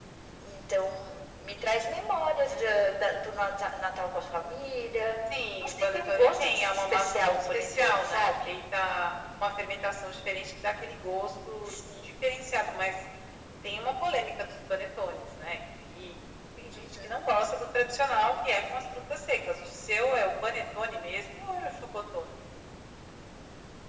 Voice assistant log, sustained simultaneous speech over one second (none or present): present